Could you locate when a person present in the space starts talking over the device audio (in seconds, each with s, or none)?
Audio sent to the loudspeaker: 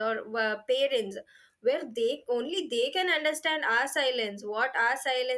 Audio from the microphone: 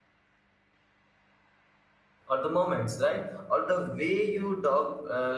2.3 s